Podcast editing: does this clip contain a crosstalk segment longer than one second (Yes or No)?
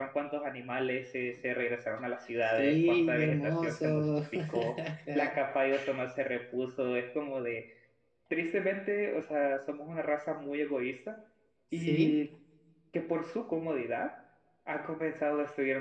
Yes